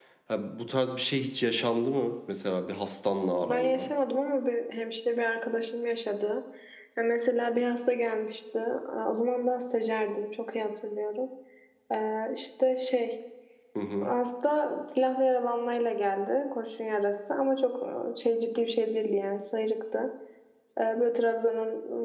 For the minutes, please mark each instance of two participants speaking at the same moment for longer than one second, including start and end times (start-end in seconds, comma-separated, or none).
none